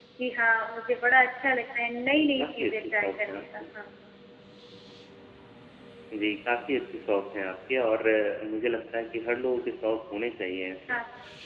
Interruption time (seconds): 2.1 s

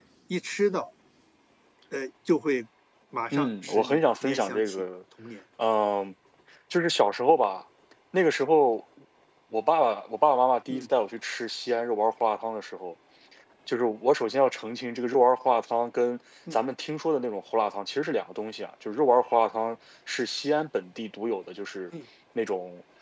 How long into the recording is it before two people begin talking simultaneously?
3.3 s

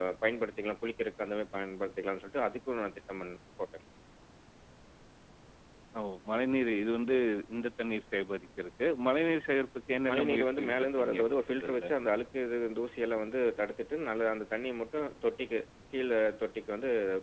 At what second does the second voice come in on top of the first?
10.1 s

